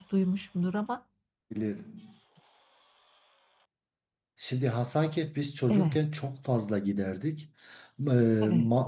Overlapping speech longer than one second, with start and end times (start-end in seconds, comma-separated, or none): none